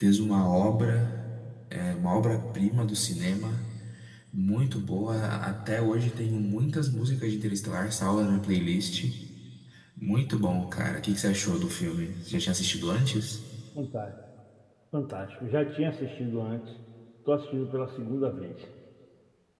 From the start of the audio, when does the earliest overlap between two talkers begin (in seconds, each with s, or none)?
none